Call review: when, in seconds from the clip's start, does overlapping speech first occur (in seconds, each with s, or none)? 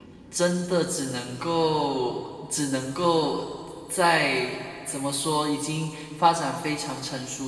none